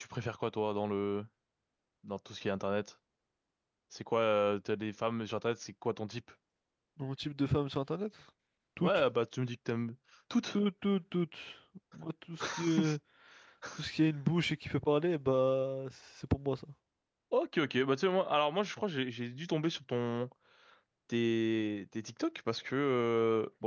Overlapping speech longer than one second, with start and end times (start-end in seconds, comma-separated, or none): none